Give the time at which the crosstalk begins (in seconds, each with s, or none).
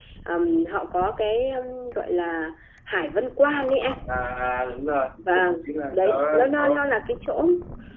5.4 s